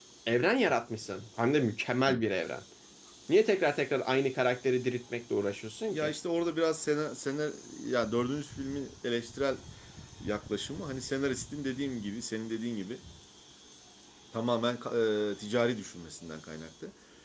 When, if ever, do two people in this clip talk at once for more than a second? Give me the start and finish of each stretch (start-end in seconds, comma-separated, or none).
none